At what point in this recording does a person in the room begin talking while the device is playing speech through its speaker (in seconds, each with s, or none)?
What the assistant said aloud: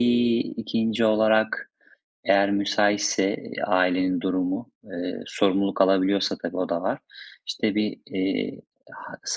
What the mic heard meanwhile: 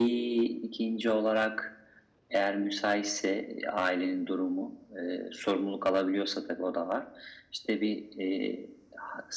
none